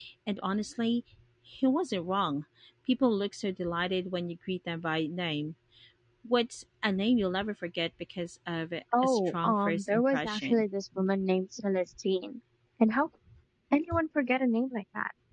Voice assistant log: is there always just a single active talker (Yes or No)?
No